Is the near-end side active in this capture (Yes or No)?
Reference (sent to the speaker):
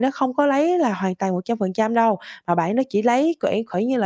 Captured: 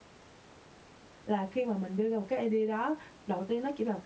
Yes